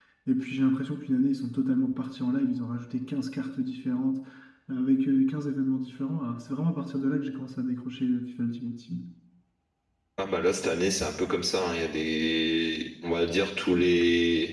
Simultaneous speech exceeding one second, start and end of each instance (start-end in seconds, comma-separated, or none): none